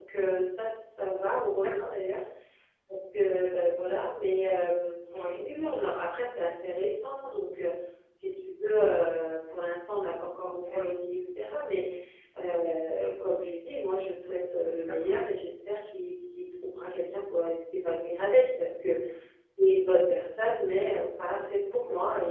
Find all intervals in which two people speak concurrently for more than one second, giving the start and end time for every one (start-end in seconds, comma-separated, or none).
none